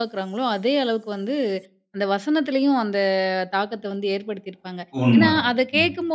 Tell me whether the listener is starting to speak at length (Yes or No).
No